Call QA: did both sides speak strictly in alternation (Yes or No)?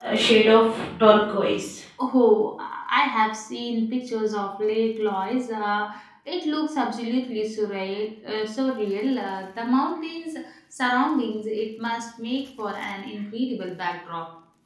Yes